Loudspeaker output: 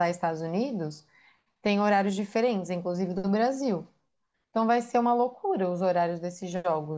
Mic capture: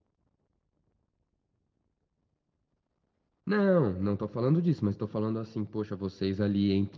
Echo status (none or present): none